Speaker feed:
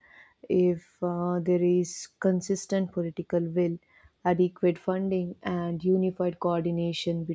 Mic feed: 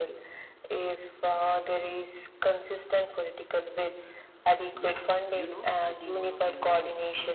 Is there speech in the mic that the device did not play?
Yes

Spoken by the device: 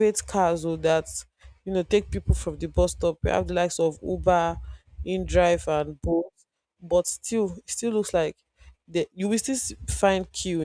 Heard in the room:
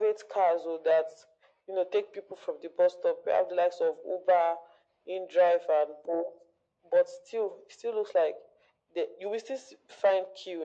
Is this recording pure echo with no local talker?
Yes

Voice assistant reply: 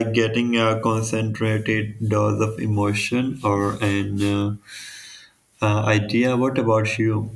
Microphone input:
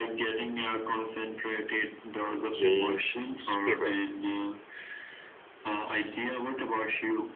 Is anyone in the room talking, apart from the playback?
Yes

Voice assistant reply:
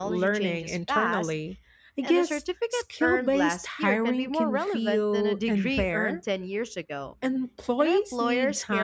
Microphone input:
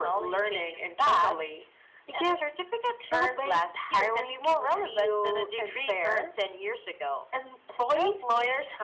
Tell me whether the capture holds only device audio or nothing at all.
Yes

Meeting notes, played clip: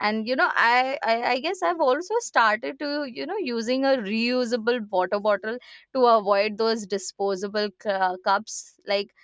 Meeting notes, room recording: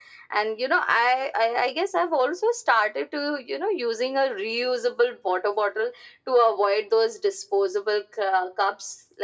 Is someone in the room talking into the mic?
No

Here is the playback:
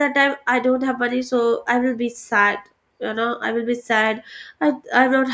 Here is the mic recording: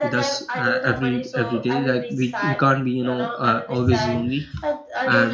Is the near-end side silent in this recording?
No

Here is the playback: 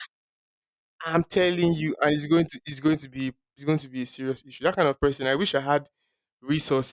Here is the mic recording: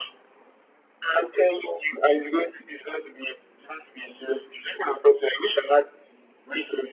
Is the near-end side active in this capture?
No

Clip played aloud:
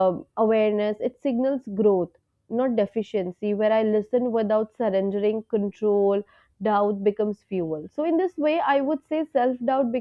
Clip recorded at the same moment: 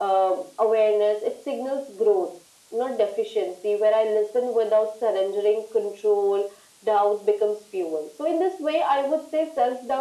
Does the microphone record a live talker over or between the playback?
No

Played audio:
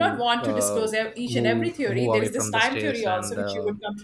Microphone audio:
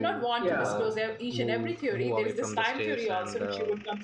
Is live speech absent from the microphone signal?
No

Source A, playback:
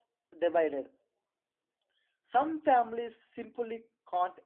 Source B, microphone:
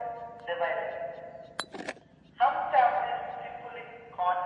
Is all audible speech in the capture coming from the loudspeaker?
Yes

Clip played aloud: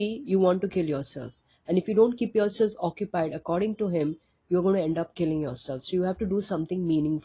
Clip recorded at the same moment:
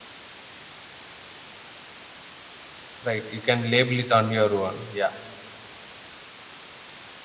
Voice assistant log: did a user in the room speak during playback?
Yes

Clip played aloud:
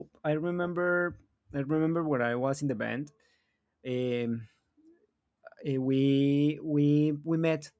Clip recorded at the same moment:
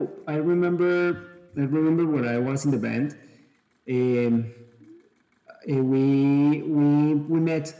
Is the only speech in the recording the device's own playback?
Yes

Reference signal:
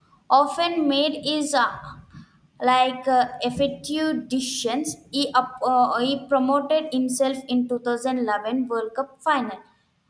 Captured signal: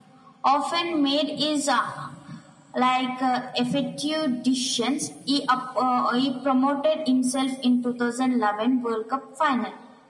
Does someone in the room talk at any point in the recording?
No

